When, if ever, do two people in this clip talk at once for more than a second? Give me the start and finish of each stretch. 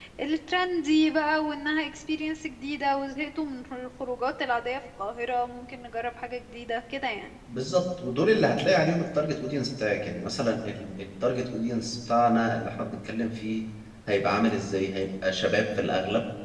none

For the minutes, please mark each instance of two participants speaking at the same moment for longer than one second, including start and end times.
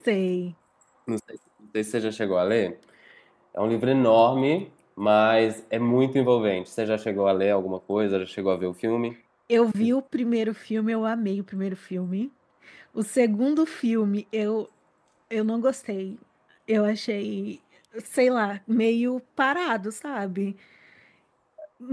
none

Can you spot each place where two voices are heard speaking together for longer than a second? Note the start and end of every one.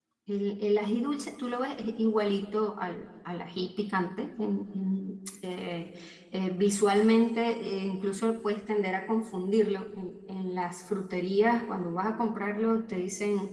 none

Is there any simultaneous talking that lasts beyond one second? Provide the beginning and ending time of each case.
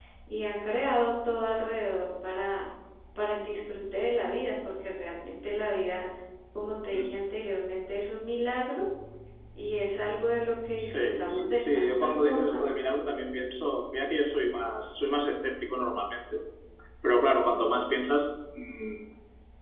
10.8-12.6

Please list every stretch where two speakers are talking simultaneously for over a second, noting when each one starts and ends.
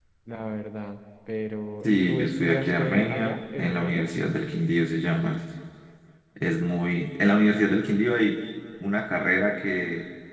1.8-4.0

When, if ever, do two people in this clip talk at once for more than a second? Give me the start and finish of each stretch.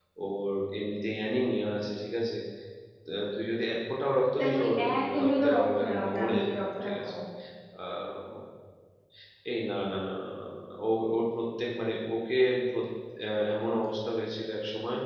4.4-7.1

